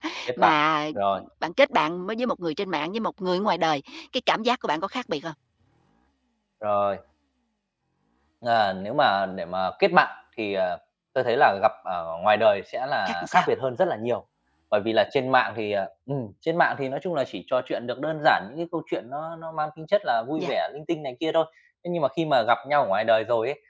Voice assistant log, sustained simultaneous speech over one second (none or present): none